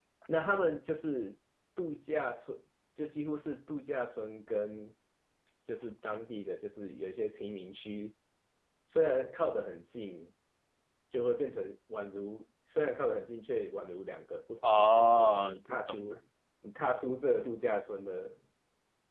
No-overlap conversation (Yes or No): No